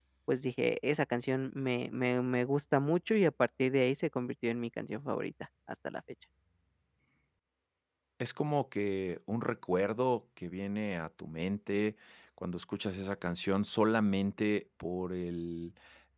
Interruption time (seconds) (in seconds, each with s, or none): none